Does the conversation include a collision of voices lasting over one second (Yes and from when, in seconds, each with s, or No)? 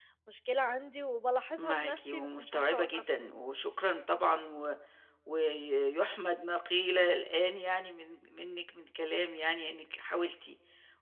Yes, from 1.6 s